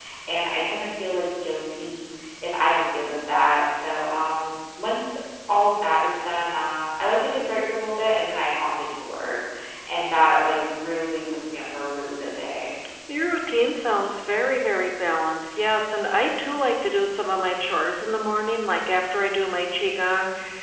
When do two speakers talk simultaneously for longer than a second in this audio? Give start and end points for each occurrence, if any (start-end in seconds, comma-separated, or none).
none